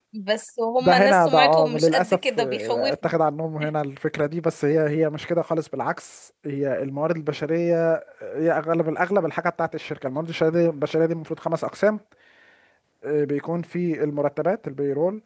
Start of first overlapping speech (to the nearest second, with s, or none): 1 s